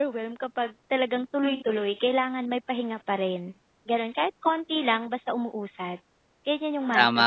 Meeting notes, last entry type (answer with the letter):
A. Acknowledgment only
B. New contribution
B